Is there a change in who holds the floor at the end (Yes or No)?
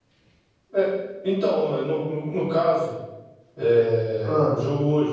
No